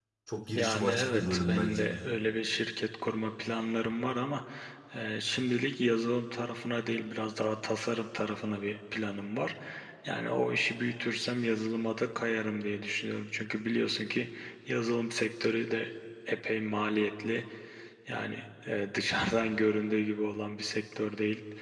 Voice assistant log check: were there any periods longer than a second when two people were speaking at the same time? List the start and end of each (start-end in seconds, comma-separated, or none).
0.6-1.9